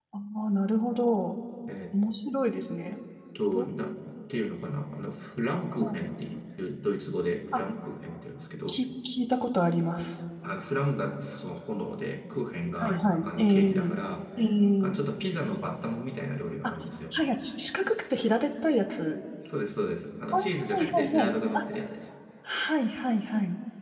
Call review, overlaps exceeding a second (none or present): present